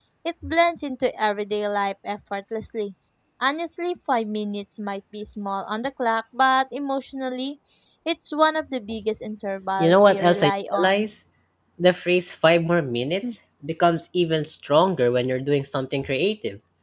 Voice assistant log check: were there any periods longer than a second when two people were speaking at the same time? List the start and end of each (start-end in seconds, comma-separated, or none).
9.8-11.1